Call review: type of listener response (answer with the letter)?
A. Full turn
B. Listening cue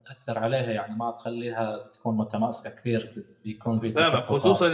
A